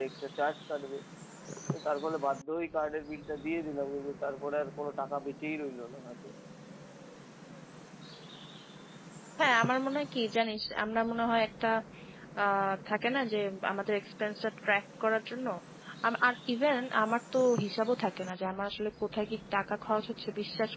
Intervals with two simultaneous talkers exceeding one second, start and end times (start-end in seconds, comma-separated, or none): none